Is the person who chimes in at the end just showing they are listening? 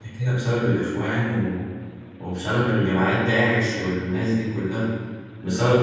No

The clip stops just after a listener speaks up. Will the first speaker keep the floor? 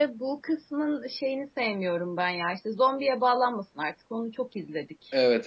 No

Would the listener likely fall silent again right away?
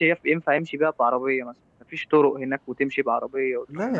No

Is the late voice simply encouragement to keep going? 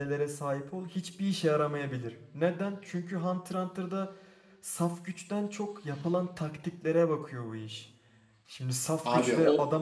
Yes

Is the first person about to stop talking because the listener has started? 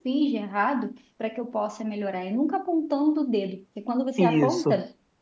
No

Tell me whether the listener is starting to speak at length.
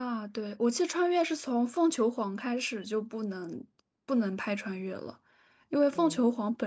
No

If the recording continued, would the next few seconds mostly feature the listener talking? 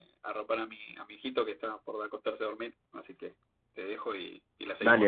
Yes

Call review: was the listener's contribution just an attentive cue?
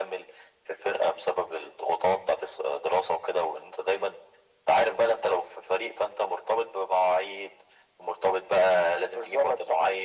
Yes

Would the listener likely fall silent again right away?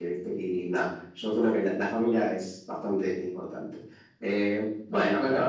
Yes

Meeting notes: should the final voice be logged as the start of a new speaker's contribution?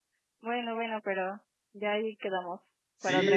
Yes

